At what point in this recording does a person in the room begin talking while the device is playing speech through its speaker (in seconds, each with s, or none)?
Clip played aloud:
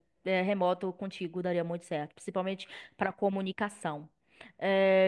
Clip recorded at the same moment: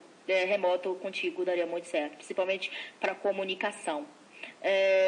none